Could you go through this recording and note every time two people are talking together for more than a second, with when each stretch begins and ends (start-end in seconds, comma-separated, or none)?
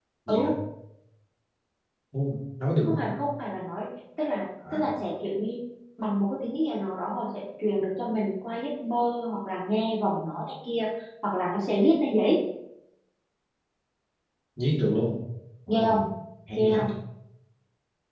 none